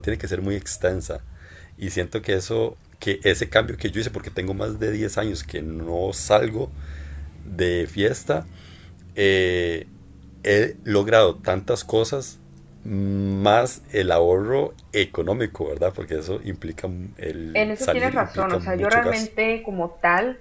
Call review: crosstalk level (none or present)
present